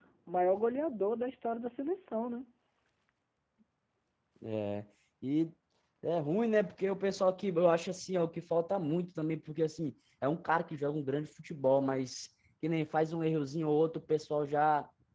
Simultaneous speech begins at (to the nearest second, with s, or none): none